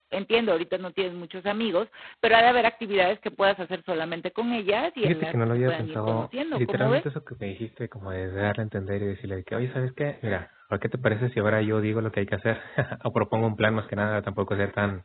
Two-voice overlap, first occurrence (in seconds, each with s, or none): 5.0 s